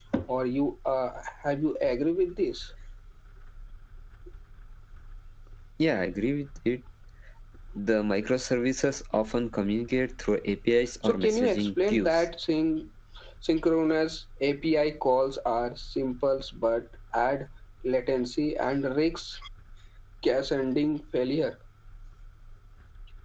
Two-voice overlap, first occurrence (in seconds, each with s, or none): 11.0 s